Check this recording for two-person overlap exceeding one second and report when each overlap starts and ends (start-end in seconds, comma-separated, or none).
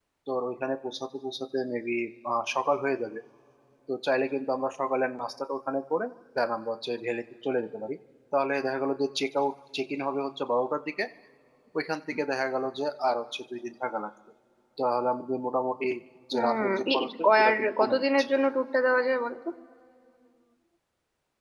16.3-18.0